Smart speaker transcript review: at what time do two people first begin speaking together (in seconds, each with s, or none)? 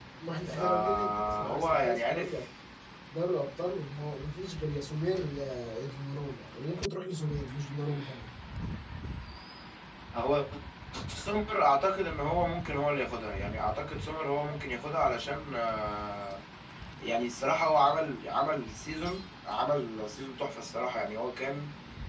0.5 s